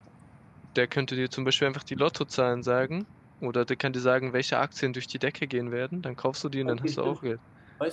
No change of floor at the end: No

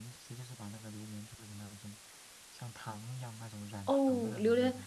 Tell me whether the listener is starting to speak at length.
Yes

